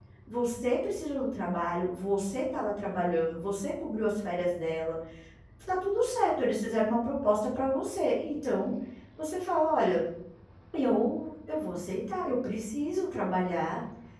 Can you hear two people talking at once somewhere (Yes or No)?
No